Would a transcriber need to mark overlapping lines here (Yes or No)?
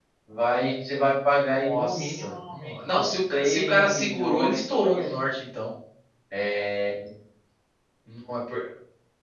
Yes